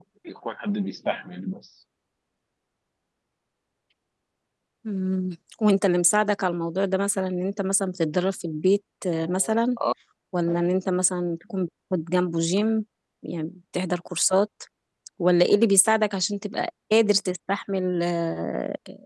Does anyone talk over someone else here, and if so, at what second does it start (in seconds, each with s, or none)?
none